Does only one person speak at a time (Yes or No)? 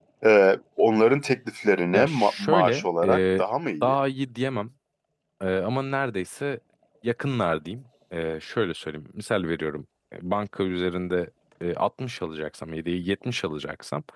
No